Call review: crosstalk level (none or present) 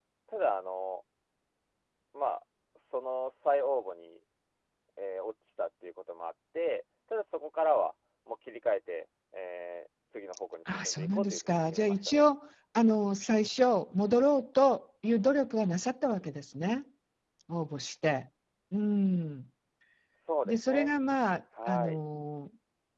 present